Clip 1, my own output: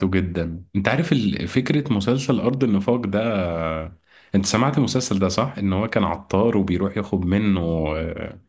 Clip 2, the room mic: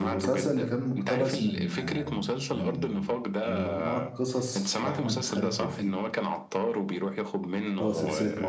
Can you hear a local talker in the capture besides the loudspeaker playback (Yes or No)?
Yes